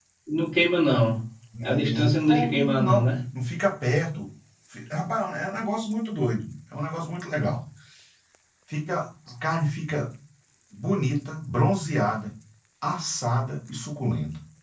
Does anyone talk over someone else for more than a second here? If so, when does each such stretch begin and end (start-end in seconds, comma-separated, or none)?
1.6-3.0